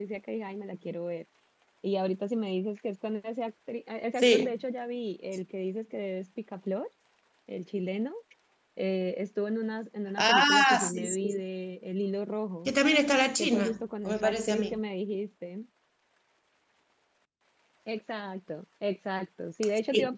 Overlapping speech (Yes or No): Yes